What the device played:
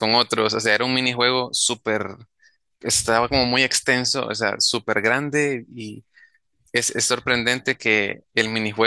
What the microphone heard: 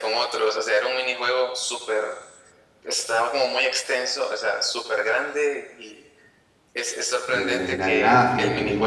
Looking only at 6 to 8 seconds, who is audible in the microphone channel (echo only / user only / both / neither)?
both